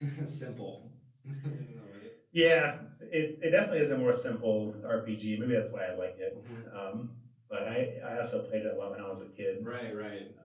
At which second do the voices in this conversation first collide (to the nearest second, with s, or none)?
none